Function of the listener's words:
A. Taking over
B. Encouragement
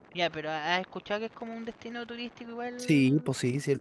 A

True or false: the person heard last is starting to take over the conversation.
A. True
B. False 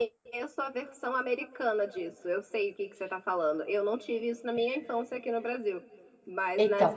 B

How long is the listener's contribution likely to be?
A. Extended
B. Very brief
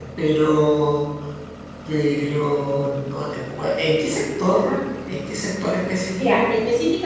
A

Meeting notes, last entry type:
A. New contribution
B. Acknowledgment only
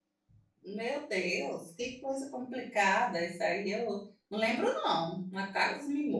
B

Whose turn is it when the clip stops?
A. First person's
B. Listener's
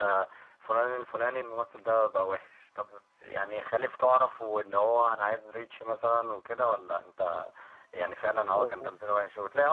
A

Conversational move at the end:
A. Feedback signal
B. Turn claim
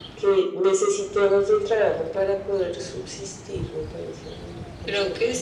B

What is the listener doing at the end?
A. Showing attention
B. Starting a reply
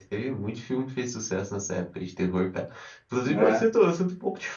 A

